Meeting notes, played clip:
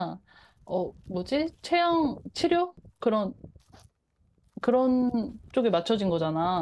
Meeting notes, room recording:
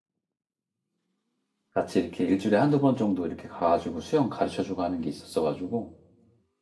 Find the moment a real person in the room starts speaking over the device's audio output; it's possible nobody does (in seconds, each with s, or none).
1.7 s